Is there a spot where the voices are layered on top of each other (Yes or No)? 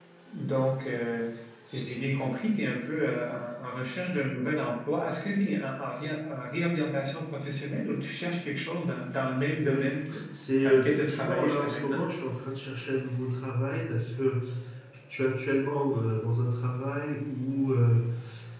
Yes